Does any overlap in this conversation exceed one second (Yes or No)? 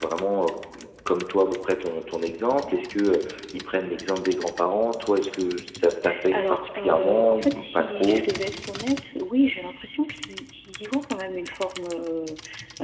Yes